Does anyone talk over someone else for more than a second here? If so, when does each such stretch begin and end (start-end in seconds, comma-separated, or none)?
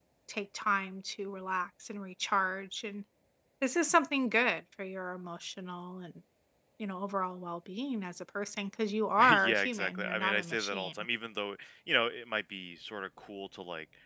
9.3-10.9